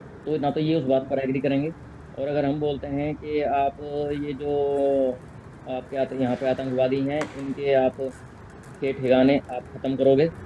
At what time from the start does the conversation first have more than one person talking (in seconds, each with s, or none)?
none